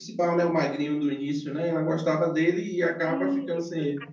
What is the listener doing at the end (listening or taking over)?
taking over